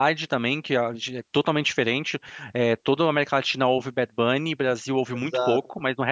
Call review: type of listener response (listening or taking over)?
listening